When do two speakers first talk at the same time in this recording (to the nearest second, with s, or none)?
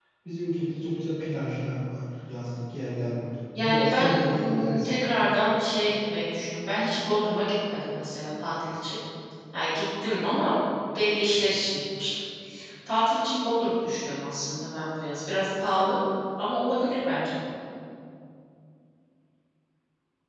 4 s